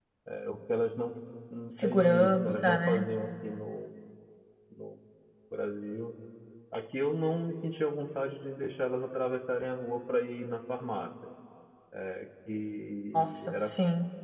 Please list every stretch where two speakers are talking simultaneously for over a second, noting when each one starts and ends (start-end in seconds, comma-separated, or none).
1.8-3.0